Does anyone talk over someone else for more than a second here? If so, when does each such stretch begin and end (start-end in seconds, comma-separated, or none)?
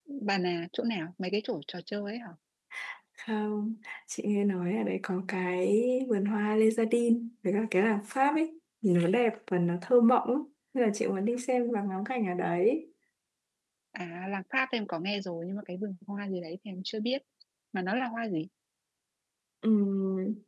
none